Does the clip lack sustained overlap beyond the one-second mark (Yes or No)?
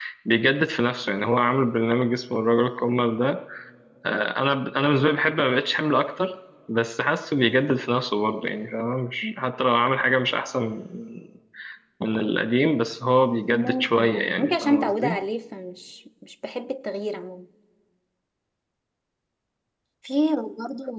No